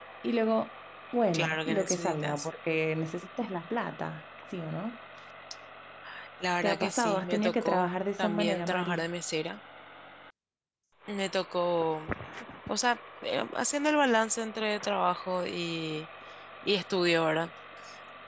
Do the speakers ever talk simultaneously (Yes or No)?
Yes